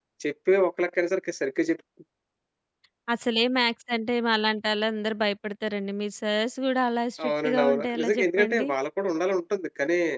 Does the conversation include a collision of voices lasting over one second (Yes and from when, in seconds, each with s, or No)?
Yes, from 7.2 s